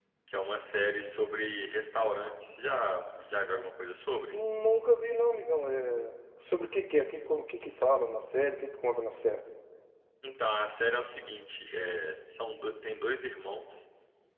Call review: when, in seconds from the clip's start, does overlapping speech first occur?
none

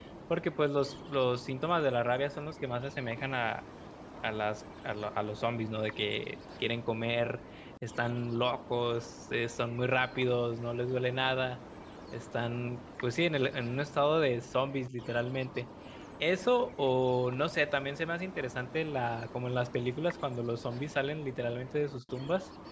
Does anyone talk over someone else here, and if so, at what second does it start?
none

